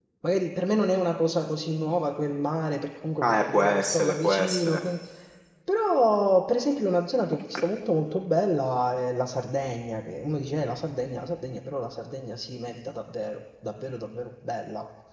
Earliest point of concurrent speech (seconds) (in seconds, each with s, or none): 3.2 s